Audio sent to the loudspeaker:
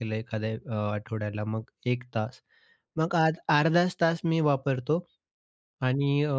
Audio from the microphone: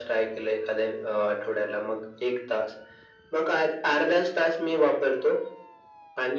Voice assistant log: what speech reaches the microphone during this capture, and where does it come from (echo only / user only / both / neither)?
echo only